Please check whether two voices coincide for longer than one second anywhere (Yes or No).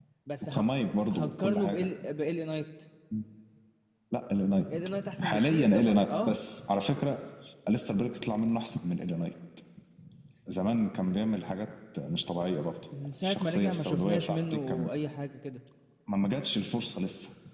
Yes